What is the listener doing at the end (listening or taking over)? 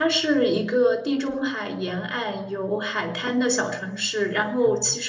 listening